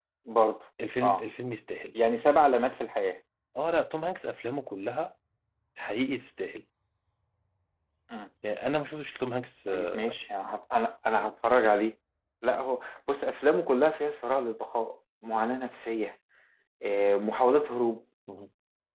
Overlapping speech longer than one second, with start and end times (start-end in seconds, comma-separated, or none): none